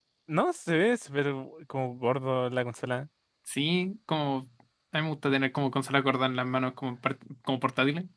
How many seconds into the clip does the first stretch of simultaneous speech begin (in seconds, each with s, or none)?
none